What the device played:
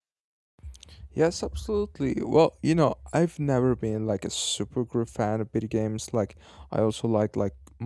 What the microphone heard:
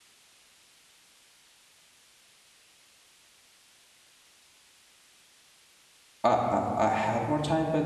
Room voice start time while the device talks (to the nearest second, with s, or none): 6 s